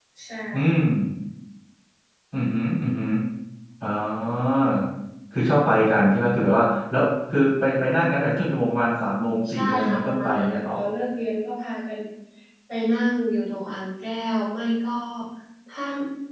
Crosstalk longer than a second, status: present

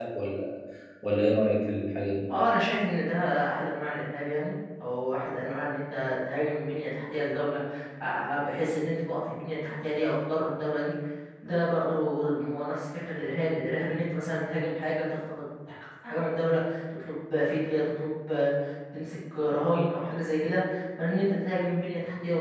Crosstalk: none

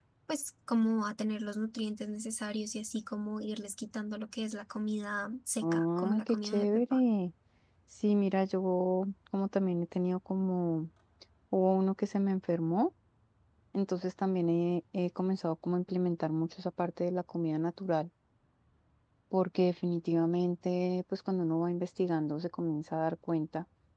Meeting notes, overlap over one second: present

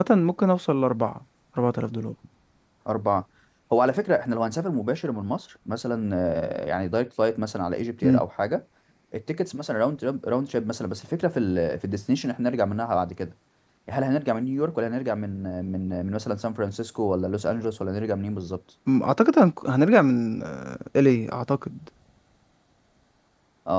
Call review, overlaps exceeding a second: none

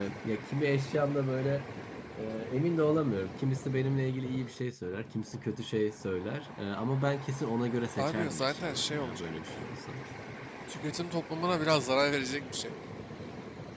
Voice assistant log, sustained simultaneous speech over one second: present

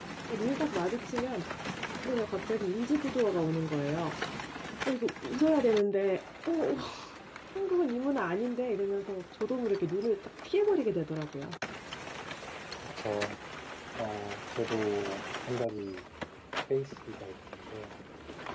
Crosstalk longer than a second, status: none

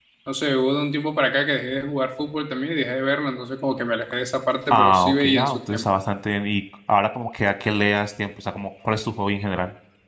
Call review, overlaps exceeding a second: present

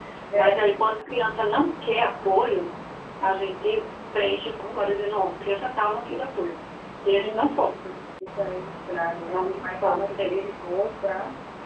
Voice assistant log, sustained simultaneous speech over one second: present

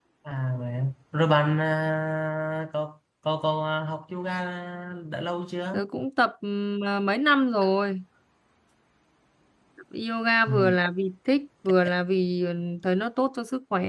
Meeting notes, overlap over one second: none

